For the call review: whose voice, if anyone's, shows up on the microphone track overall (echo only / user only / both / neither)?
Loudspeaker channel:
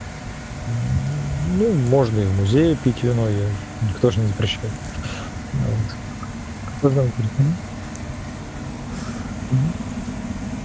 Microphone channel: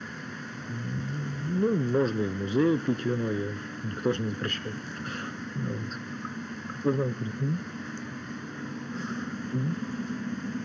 echo only